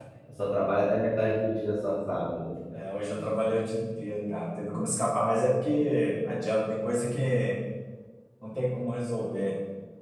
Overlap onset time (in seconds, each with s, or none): none